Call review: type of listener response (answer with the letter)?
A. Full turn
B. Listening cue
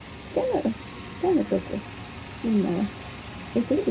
A